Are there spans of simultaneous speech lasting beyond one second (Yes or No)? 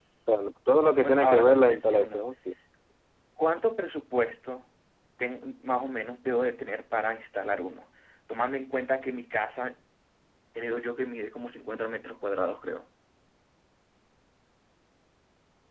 Yes